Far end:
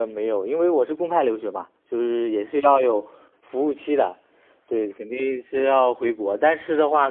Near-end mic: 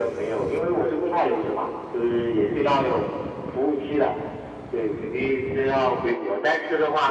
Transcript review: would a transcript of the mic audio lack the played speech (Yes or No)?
No